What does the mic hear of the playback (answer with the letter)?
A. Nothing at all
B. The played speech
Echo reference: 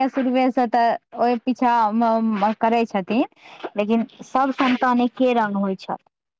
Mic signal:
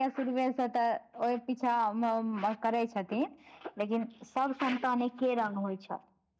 B